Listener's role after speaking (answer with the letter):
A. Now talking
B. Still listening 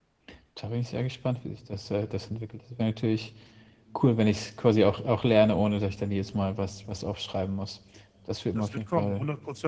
A